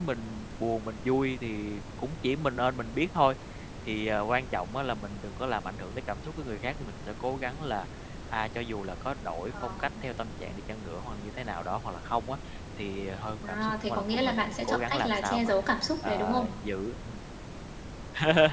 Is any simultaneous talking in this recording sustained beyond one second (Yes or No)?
Yes